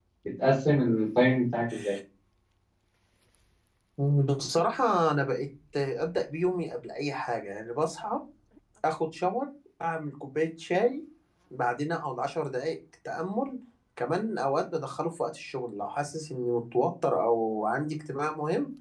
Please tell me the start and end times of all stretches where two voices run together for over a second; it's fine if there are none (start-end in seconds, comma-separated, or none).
none